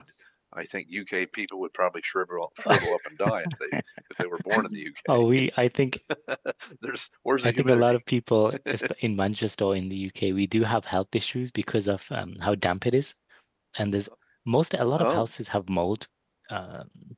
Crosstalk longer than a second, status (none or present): none